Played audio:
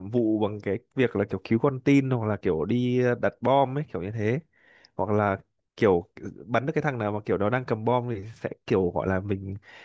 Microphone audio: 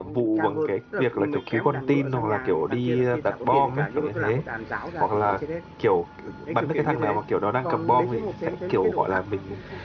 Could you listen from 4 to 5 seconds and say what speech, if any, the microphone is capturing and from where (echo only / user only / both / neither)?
both